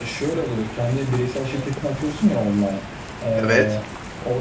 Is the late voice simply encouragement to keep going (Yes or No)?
Yes